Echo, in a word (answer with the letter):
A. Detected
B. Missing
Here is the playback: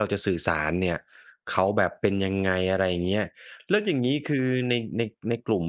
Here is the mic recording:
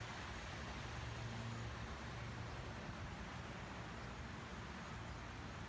B